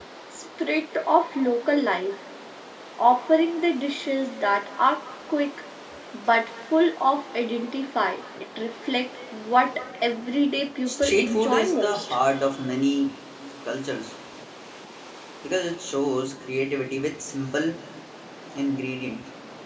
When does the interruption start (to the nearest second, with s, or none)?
11 s